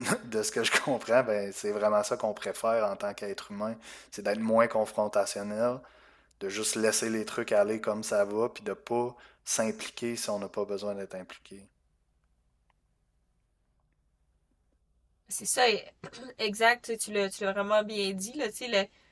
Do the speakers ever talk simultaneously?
No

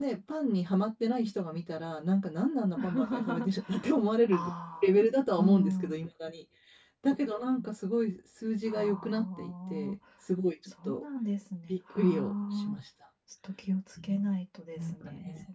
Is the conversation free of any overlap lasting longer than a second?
No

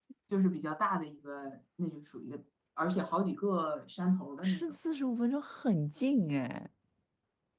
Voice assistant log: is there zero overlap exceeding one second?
Yes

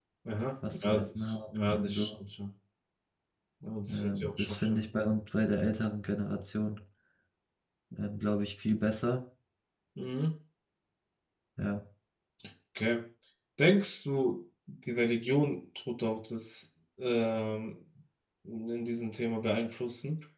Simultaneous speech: Yes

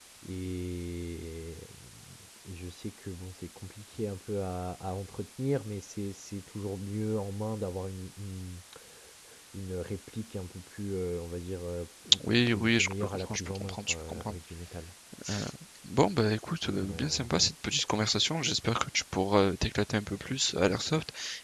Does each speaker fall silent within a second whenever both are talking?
No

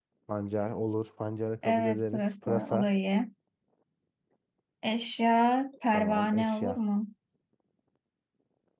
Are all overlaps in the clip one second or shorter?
No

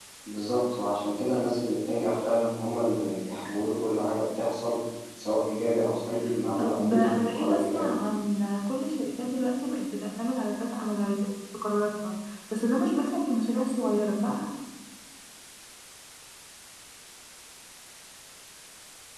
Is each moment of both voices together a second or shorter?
No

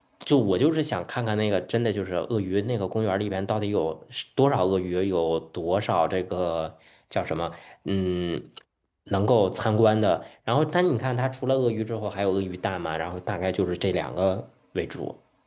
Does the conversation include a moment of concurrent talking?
No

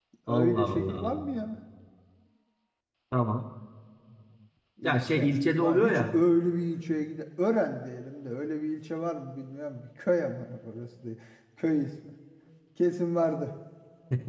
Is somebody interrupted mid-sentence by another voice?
Yes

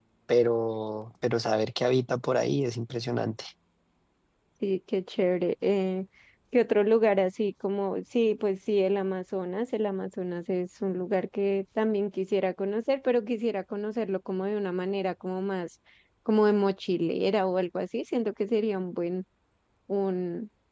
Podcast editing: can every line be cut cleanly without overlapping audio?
Yes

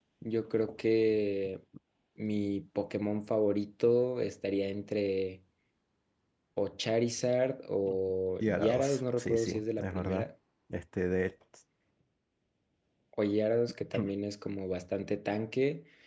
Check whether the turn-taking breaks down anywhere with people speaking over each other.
Yes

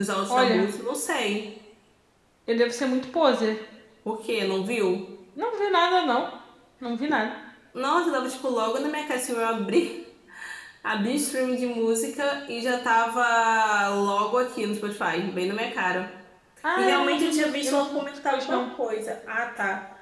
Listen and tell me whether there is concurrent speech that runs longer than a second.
Yes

